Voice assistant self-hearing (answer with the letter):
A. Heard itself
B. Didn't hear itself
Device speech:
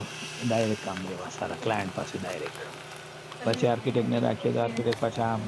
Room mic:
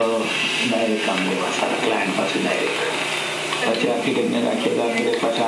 A